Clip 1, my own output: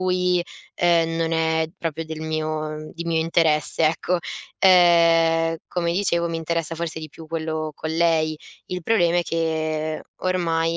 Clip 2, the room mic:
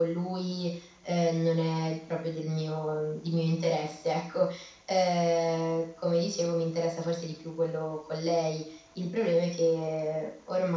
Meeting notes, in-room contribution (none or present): none